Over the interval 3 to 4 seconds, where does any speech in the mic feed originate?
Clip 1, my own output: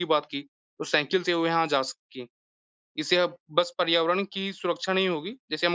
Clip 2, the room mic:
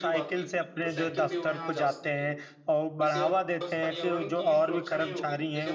both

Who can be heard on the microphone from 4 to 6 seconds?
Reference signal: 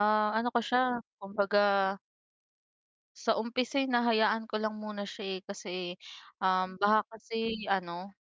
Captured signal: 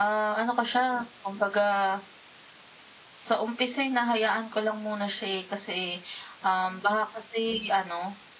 echo only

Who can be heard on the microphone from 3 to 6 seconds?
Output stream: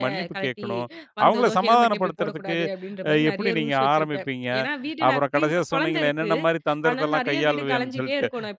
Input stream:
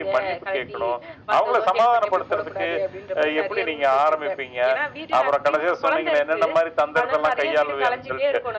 echo only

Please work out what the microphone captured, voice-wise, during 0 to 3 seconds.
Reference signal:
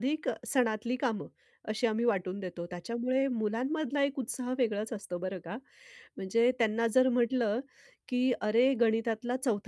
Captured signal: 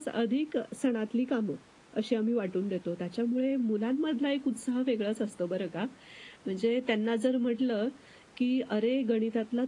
echo only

